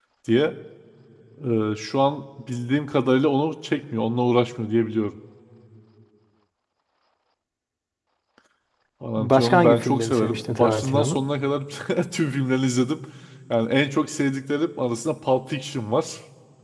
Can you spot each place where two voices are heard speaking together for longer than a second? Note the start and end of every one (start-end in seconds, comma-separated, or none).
9.2-11.2